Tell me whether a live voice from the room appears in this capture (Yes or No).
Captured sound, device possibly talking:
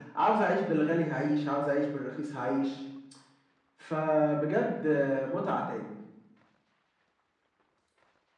No